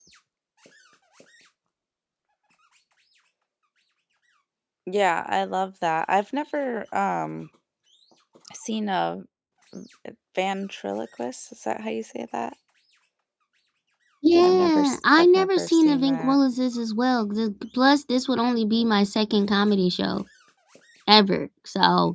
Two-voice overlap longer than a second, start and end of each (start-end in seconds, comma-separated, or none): 14.4-16.4